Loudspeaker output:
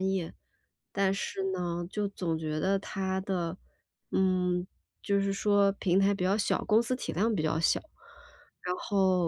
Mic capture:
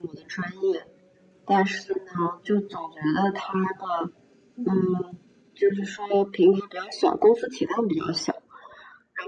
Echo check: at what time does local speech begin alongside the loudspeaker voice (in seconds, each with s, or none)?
4.6 s